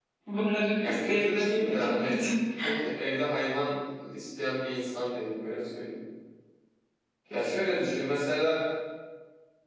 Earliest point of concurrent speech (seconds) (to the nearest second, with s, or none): 1 s